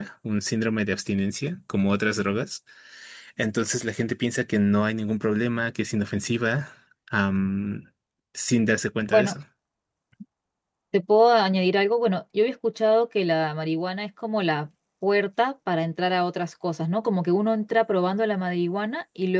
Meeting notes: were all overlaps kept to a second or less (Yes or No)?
Yes